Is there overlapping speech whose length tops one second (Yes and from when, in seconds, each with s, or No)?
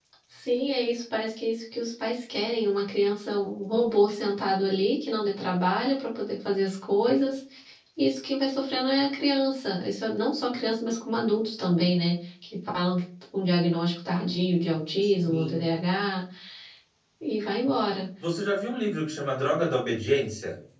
No